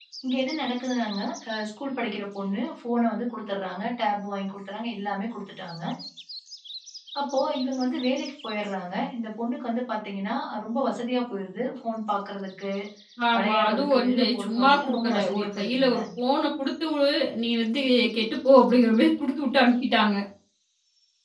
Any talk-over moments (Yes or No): Yes